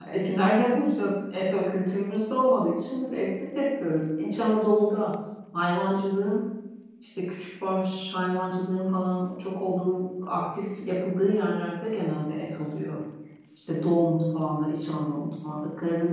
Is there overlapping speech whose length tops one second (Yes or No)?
No